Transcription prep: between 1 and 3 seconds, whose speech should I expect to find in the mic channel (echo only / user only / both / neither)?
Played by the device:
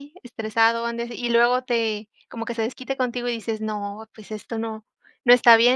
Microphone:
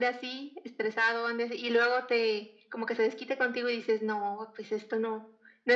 echo only